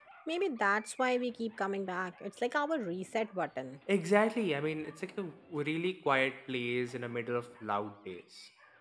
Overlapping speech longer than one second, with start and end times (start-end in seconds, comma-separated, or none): none